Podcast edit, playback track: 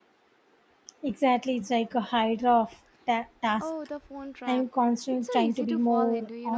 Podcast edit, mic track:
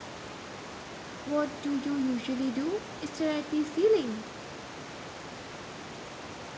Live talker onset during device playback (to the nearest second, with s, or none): 1 s